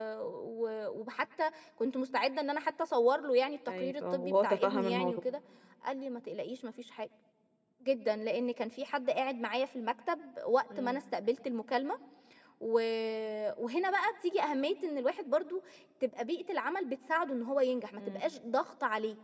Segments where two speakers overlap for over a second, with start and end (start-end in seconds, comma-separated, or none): 3.7-5.2